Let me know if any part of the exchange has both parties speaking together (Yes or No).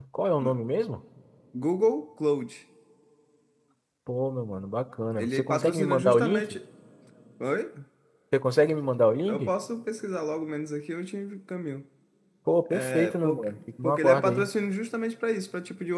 Yes